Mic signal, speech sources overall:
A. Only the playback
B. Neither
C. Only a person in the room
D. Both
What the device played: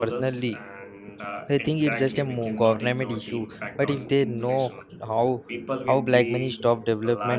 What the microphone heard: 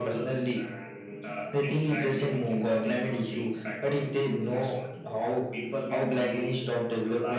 A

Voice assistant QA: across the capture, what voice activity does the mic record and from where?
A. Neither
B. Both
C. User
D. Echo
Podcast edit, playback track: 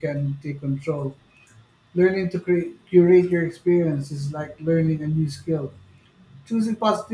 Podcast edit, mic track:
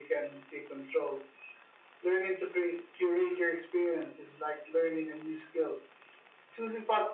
D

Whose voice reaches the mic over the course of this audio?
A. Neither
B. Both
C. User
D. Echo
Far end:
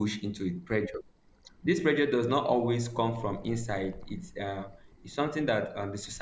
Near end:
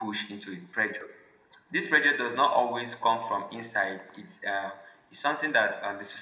D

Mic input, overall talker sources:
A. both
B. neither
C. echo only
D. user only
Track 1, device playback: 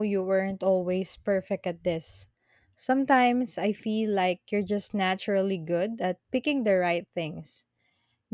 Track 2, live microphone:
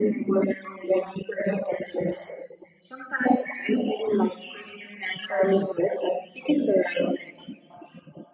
C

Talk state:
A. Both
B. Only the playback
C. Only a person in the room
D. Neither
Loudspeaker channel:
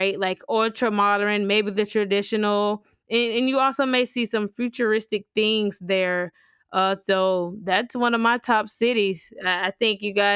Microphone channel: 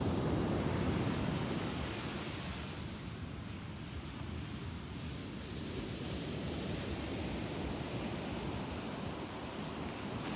D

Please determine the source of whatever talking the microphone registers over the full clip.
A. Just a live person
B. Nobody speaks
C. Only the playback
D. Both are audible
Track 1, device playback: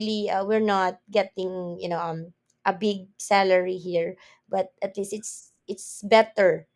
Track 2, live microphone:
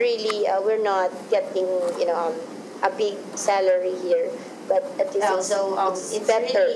D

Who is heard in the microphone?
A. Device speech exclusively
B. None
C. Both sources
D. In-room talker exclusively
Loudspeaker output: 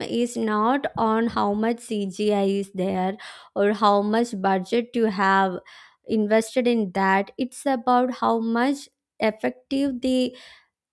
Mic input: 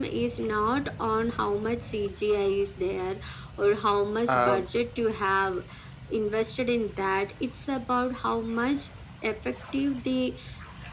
C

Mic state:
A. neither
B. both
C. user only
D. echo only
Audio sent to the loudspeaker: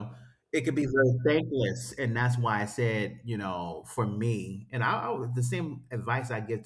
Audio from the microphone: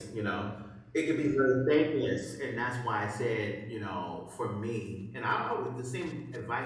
D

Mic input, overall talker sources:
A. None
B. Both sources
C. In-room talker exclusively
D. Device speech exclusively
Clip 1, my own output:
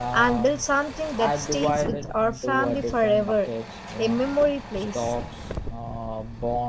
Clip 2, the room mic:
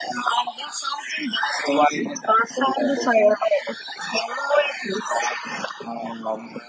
D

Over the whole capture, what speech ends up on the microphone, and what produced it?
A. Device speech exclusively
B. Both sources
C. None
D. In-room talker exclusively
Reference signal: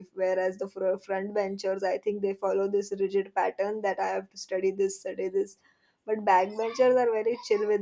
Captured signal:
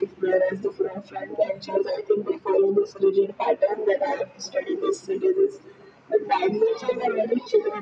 A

